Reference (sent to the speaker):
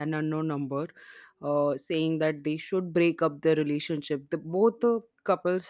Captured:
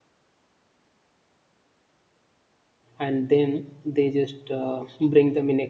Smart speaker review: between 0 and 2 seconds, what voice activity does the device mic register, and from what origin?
neither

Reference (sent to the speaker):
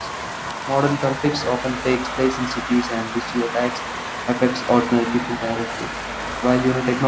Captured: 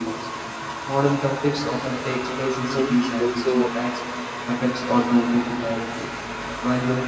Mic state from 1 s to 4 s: both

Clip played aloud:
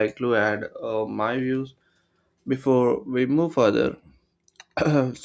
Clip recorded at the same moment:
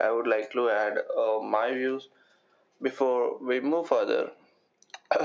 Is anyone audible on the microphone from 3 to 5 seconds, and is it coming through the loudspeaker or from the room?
echo only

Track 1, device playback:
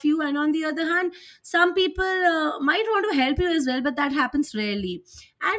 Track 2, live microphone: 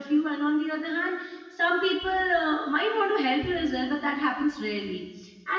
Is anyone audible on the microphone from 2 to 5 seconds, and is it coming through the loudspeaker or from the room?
echo only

